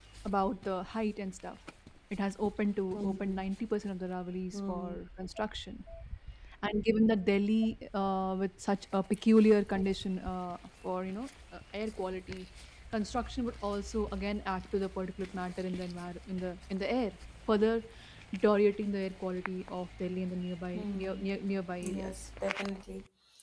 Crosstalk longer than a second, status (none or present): none